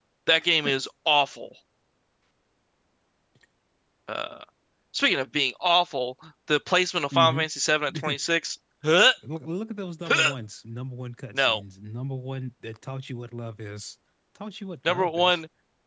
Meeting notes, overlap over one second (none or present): none